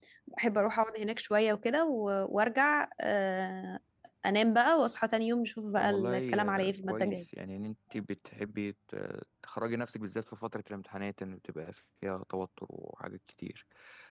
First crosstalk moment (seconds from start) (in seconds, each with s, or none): 5.8 s